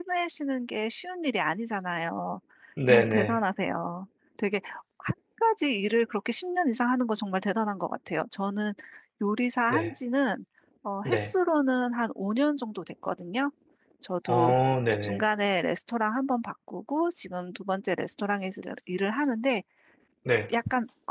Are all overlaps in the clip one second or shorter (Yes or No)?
Yes